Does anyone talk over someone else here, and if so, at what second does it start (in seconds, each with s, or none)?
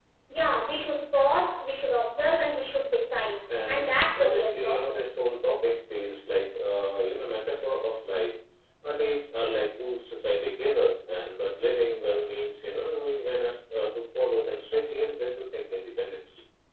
3.5 s